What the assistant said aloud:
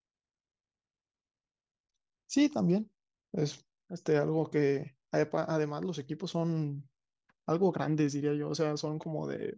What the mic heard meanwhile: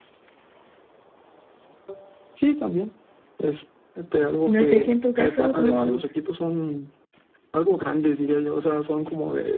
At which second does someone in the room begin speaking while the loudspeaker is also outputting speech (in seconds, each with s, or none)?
4.4 s